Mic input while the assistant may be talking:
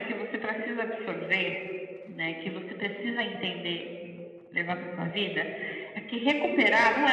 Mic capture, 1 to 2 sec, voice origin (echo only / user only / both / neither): echo only